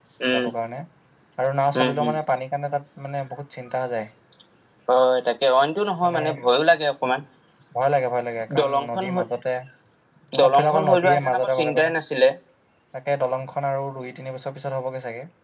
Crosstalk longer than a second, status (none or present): present